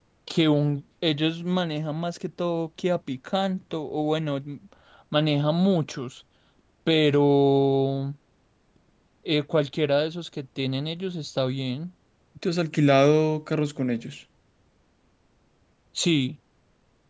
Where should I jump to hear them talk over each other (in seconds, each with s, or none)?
none